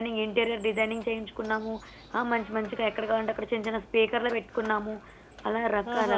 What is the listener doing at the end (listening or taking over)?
taking over